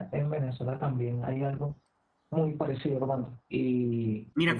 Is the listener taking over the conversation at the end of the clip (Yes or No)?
Yes